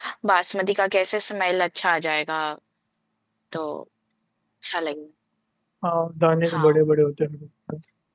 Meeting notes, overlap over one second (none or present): none